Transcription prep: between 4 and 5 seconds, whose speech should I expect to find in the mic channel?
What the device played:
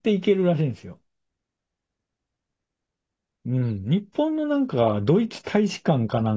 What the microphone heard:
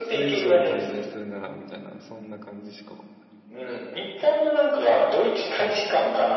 echo only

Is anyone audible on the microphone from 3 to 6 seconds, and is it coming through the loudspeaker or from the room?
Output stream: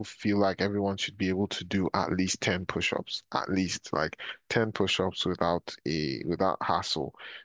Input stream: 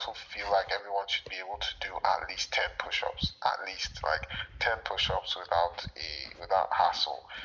echo only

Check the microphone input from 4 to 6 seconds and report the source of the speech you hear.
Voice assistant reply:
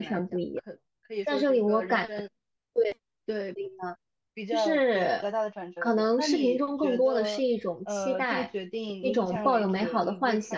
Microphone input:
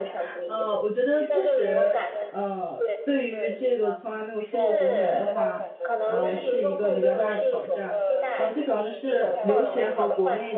both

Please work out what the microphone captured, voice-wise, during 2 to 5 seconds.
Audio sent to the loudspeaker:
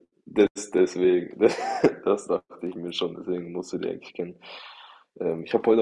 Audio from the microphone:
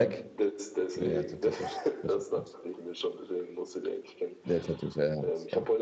both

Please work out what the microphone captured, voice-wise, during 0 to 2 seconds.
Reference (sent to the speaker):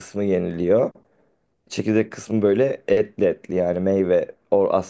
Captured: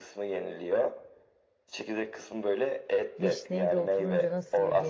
echo only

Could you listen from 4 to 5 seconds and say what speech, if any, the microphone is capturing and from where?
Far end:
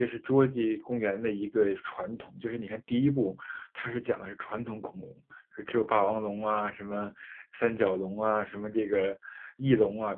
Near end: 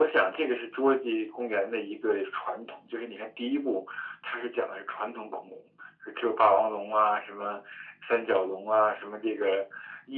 echo only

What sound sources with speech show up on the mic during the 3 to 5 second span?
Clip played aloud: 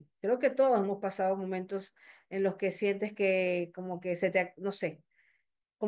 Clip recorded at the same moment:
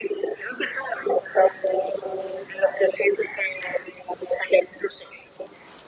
echo only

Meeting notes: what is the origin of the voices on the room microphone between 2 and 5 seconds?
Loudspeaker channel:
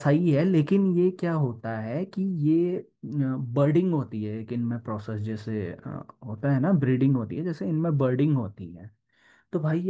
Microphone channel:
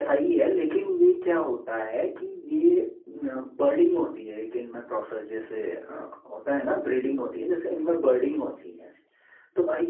echo only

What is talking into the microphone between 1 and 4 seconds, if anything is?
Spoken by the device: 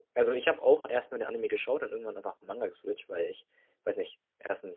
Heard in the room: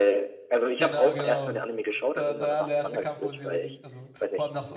both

